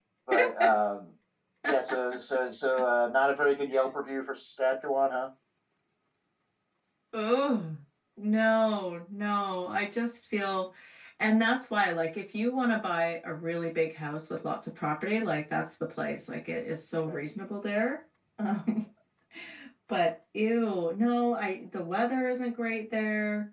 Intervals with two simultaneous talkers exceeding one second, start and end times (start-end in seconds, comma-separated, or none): none